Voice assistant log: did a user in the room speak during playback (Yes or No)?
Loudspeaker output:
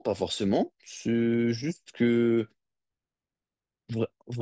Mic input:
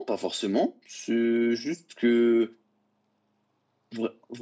No